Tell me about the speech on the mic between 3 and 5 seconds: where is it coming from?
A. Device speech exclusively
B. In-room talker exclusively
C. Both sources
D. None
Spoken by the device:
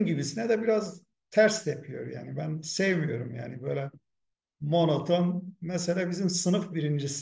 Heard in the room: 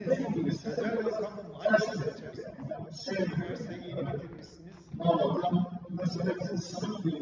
C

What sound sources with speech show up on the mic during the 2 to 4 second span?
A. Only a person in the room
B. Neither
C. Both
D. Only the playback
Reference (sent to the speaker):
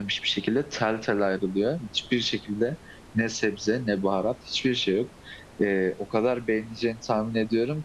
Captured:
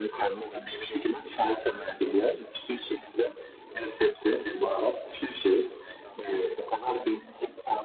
C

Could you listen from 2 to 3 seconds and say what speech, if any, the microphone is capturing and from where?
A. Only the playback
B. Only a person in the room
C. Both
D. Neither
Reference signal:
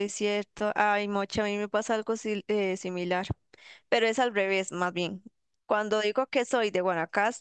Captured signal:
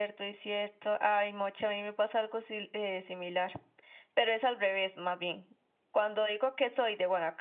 A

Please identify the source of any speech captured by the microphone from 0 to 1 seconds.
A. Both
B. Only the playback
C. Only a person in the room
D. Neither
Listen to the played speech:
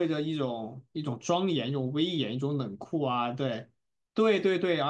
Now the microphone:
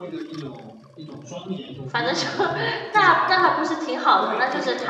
B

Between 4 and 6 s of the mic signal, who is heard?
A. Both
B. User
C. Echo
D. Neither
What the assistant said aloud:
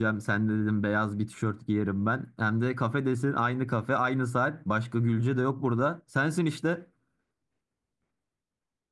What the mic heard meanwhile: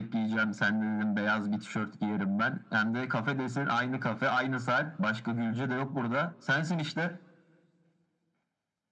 C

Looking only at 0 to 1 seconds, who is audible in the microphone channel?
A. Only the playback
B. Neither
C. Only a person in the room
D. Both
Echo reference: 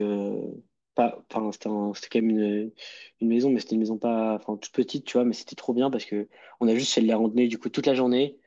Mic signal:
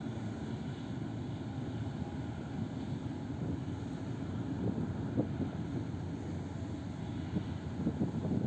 B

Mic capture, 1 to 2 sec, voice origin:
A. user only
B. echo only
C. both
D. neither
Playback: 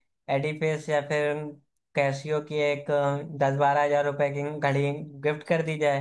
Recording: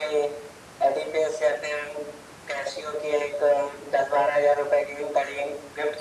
B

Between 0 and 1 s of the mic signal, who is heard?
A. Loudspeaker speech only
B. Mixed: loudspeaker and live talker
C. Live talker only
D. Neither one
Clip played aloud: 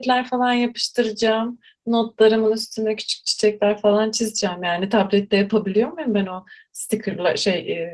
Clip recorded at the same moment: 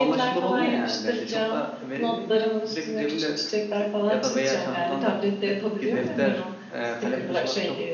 B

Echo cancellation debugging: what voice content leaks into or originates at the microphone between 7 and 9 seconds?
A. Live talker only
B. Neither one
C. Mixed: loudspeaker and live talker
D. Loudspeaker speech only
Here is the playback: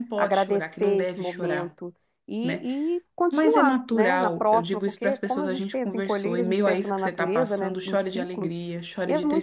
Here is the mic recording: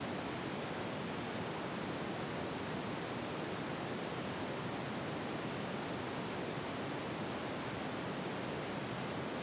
B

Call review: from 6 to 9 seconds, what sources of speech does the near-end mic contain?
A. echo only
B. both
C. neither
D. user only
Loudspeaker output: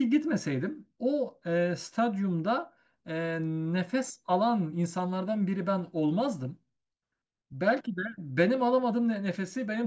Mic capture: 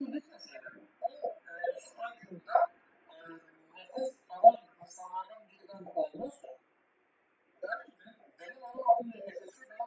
A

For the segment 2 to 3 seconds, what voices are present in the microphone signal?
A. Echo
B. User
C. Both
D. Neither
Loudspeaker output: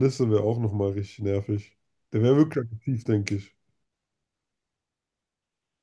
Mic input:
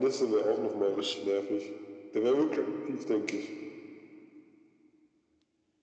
A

